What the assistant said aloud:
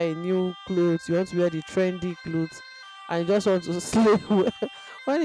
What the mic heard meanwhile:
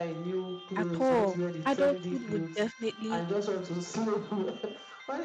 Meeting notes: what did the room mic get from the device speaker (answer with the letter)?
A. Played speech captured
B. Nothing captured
A